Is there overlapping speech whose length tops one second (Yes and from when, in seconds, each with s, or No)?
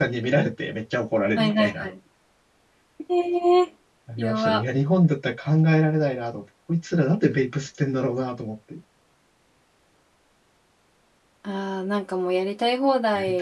No